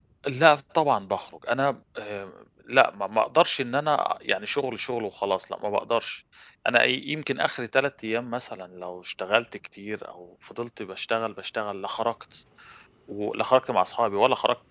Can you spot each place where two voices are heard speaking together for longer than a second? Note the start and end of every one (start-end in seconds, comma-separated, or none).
none